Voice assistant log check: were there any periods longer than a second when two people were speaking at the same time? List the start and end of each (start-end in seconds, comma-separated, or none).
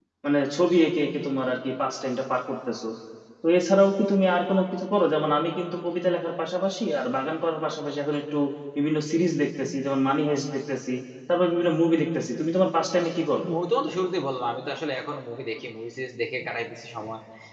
none